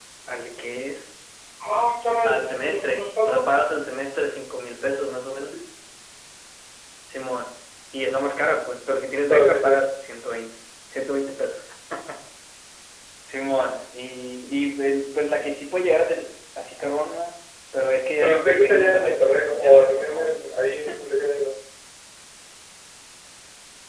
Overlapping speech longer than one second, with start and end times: 2.2-3.5, 18.2-20.4

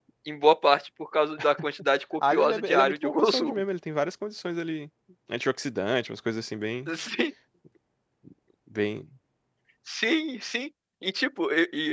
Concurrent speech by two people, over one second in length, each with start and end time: 2.3-3.6

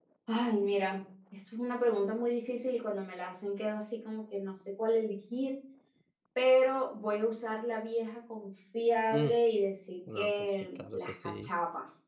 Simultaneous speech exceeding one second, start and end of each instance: 10.2-11.5

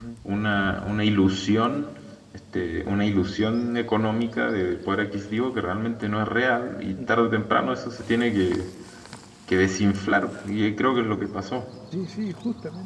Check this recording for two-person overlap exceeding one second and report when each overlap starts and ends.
none

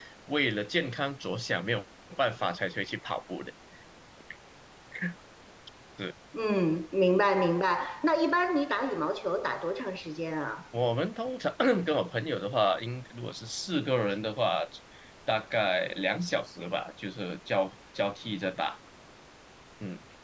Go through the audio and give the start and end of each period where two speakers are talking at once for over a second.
none

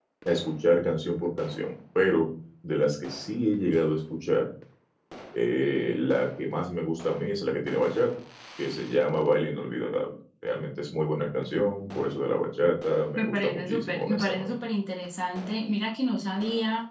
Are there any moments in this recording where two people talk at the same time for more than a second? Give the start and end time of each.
13.2-14.6

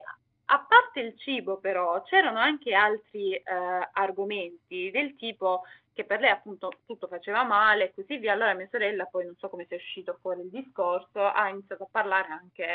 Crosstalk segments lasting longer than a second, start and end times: none

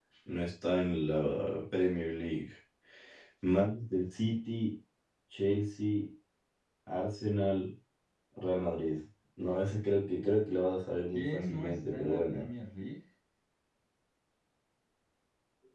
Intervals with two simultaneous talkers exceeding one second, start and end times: 11.1-12.5

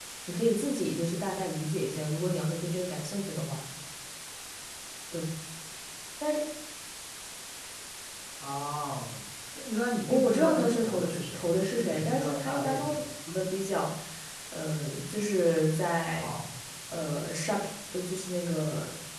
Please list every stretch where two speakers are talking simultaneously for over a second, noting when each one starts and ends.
10.1-13.1

